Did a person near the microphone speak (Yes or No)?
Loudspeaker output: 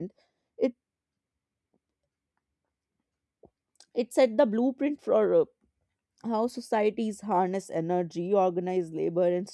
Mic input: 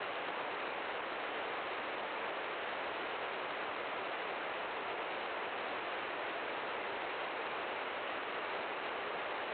No